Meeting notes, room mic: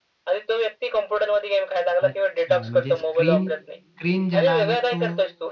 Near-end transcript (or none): अच्छा. म्हणजे स्क्रीन स्क्रीन ज्याला आहे तो